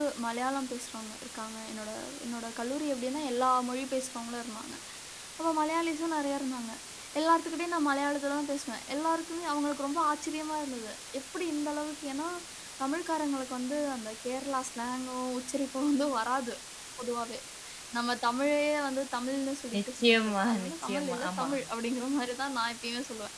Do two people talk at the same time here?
Yes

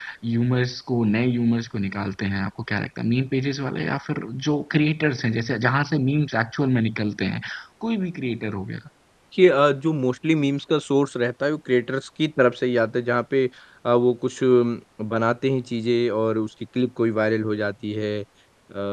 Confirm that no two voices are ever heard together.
Yes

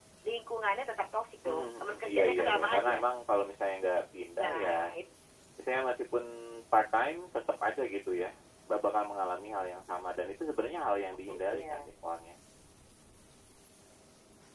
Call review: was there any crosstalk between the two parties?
Yes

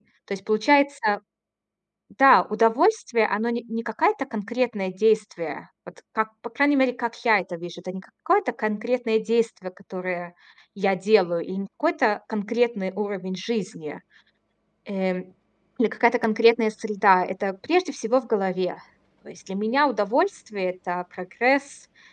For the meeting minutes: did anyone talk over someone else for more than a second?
No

